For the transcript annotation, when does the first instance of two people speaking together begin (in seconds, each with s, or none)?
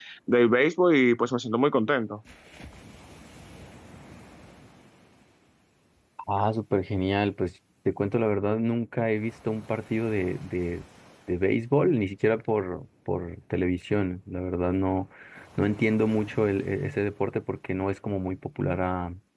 none